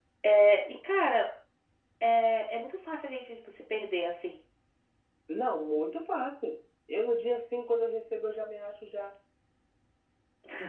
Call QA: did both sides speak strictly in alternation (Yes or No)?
Yes